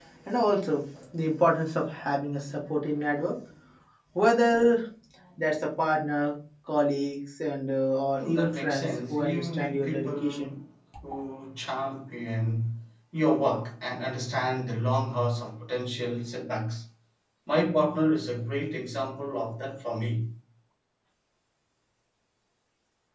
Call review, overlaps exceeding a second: present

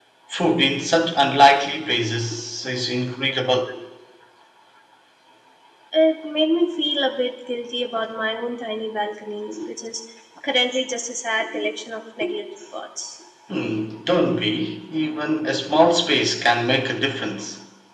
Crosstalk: none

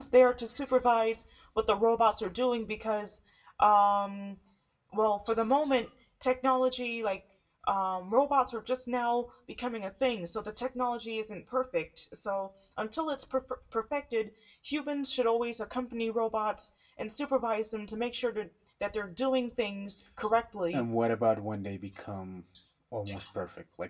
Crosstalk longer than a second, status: none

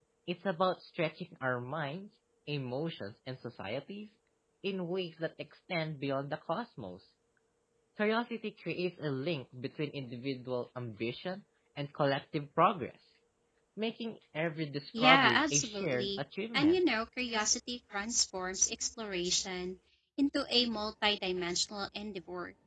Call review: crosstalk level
present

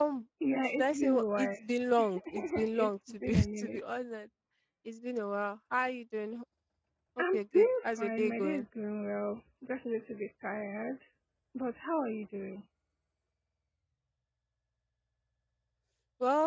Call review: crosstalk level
present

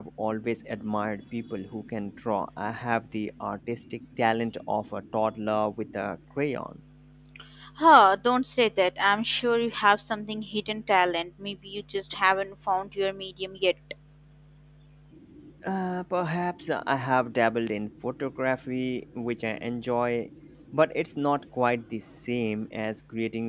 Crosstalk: none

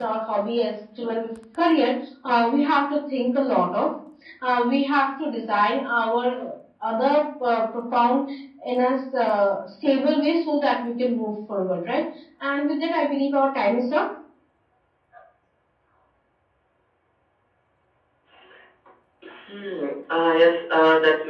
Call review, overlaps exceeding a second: none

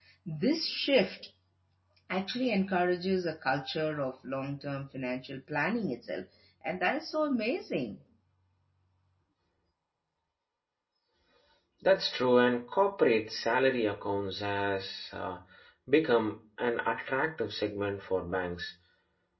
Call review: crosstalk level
none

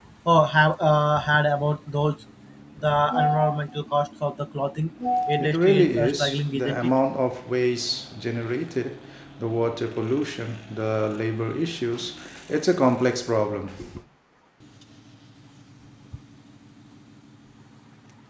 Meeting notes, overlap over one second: present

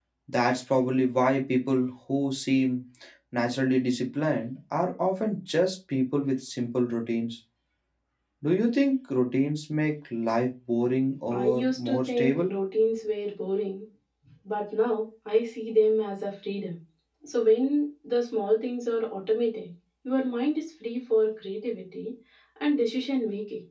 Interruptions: present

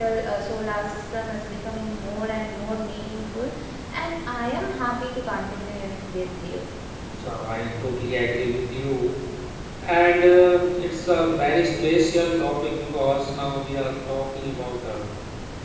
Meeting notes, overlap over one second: none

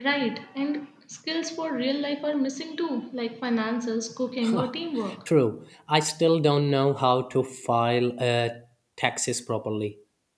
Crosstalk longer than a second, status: none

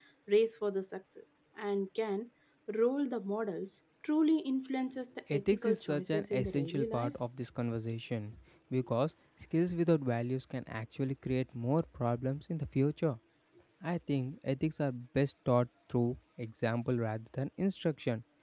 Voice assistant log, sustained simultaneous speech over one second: present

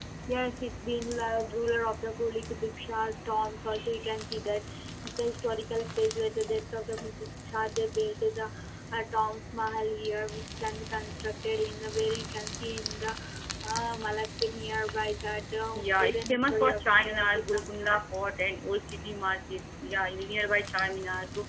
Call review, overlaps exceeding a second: present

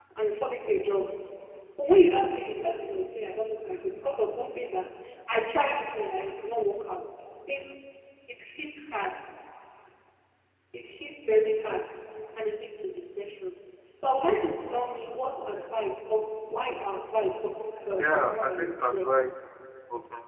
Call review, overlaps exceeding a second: present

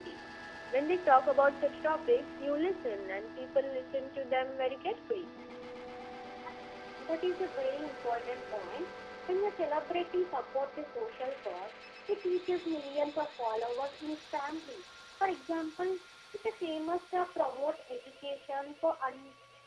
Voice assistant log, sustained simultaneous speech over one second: none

